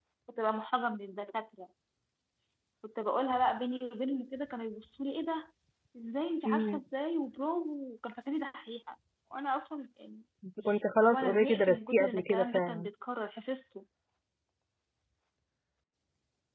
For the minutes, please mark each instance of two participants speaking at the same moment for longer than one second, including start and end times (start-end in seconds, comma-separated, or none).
11.0-12.9